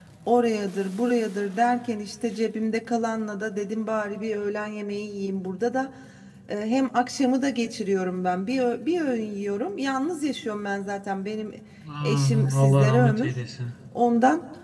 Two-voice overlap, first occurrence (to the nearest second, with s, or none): 12 s